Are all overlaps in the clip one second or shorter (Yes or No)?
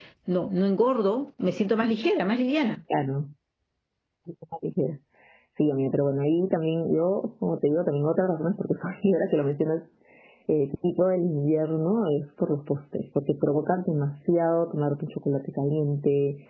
Yes